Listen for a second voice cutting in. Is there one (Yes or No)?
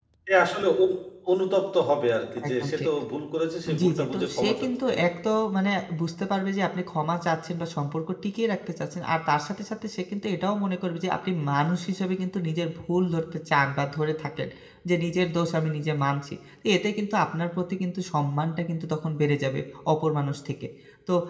Yes